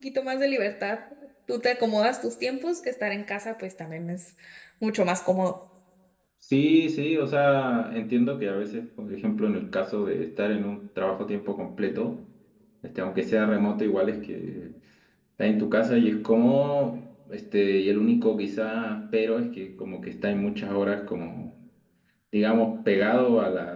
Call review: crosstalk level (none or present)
none